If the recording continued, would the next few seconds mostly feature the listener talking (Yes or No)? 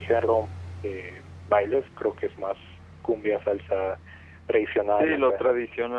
Yes